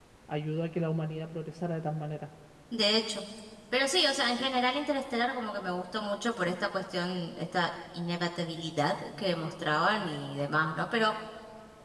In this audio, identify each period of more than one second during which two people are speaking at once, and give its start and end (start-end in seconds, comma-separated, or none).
none